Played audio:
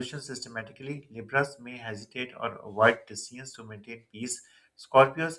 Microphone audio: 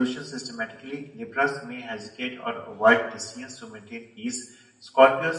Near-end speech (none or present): none